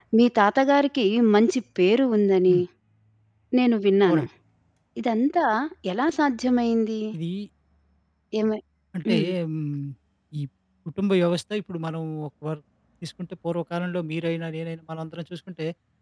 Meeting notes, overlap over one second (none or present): none